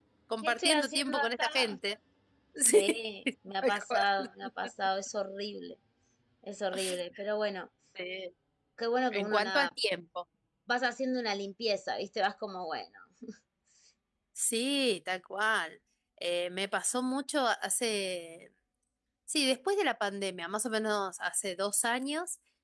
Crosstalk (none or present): present